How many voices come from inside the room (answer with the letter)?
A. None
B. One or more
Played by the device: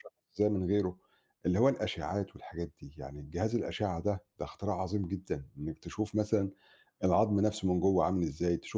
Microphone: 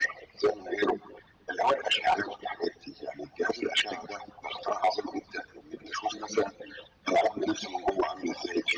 A